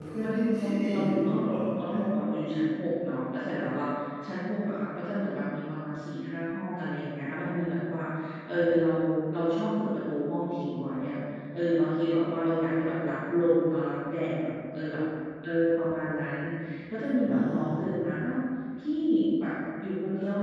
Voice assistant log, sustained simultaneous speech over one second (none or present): present